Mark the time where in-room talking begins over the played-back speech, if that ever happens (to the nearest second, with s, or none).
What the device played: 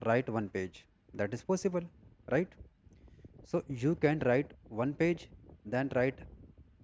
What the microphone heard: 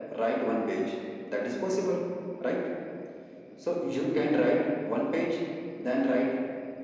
none